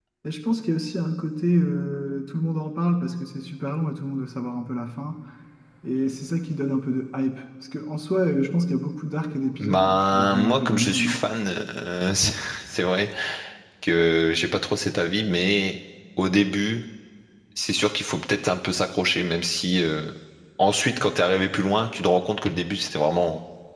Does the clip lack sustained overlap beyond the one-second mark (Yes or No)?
No